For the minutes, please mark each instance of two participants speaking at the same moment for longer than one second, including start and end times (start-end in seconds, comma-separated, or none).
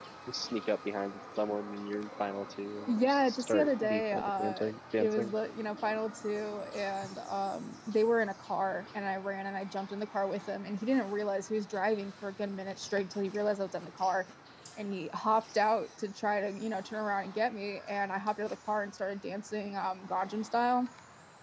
2.9-5.3